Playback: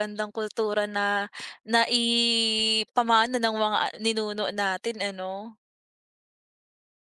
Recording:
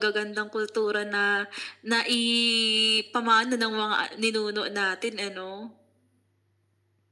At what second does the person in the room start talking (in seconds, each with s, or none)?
none